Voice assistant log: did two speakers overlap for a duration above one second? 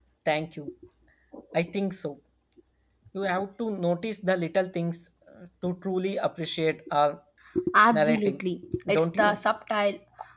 No

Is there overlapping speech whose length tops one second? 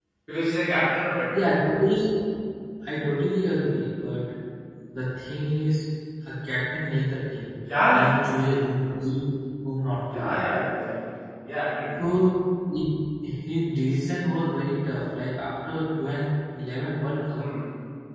No

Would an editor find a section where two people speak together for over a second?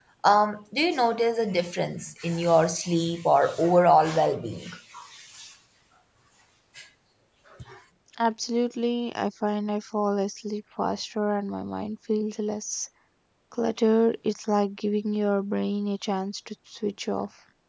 No

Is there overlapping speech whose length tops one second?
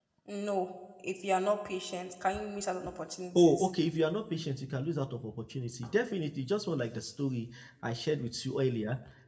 No

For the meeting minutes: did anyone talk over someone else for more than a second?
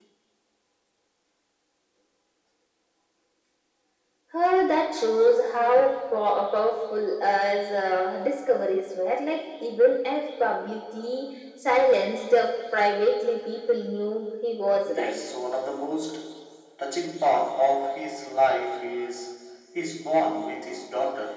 No

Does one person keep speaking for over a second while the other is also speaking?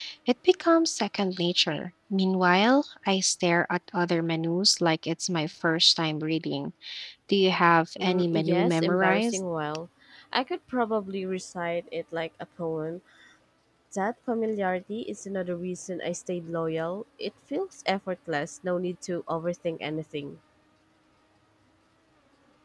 Yes, from 8.0 s

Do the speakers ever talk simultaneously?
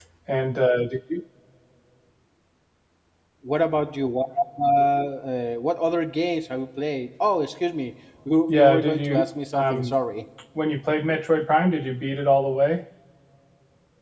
Yes, from 8.5 s

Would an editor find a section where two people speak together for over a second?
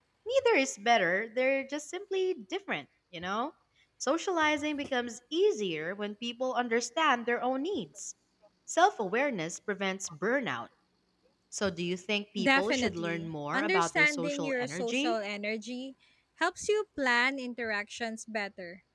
Yes, from 12.4 s

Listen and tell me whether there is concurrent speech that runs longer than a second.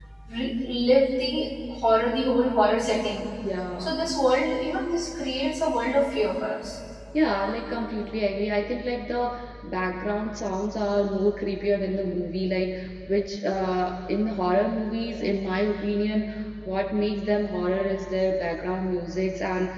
No

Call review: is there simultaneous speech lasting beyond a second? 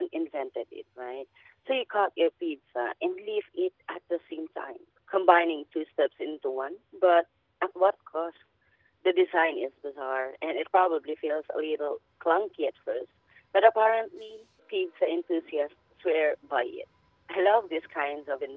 No

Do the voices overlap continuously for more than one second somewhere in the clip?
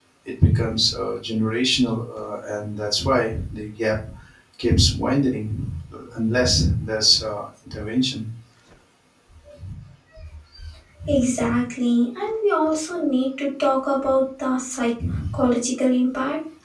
No

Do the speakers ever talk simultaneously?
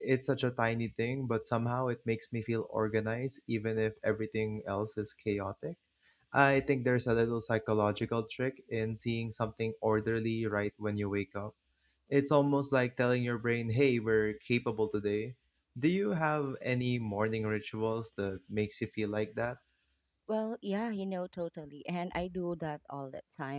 No

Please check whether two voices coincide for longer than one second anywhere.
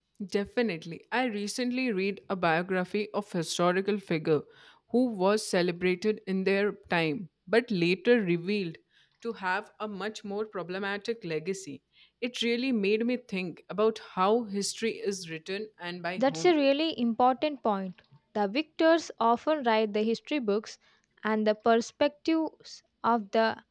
No

